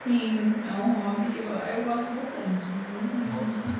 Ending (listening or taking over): listening